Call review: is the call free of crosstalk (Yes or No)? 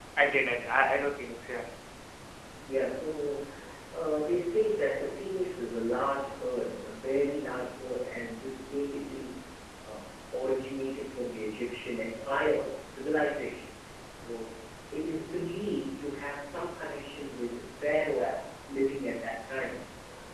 Yes